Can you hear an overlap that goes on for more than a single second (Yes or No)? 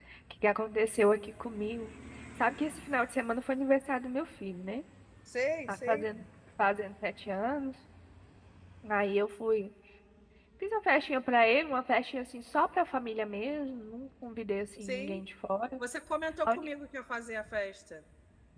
No